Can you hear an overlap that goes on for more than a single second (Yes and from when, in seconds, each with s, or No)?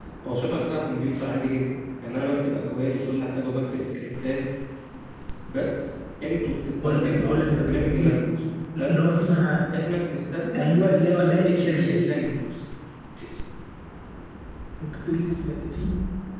Yes, from 6.8 s